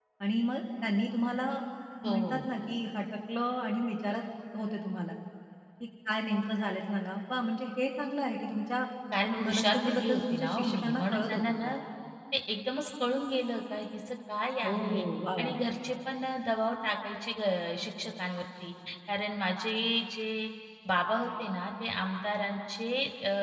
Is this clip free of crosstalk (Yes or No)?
No